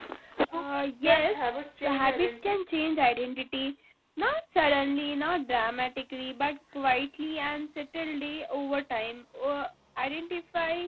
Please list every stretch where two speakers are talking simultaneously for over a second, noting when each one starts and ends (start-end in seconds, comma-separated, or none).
1.0-2.6